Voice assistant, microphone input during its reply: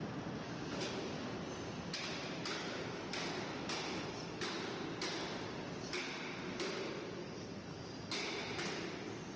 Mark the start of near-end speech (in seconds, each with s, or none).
none